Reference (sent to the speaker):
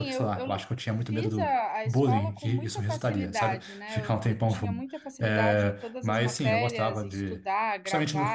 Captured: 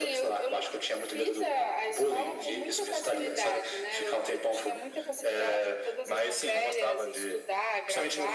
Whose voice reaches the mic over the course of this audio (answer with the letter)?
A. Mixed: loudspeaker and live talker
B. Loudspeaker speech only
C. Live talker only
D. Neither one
B